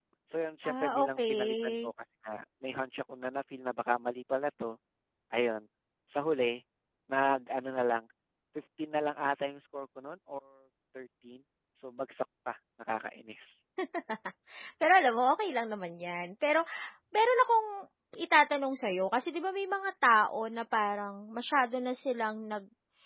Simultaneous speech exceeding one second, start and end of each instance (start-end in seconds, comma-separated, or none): 0.6-1.9